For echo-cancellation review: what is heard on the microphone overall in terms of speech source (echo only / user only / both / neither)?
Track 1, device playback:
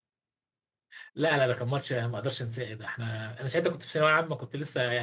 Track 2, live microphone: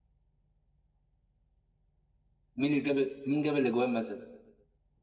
user only